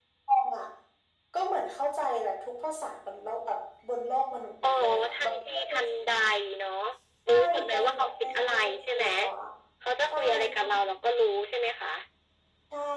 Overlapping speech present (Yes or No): Yes